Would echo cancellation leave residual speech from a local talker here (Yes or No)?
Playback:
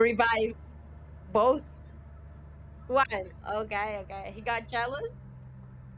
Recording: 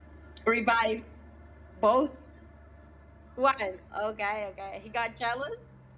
No